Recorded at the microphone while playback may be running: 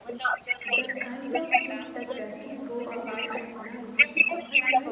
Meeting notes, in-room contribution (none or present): present